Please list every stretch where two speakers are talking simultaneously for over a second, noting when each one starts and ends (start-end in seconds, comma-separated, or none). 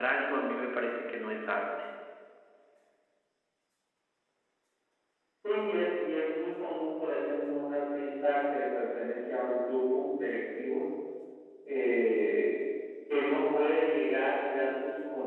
none